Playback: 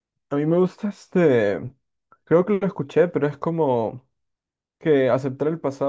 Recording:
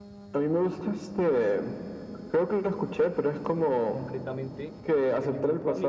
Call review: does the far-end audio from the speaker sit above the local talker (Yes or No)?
Yes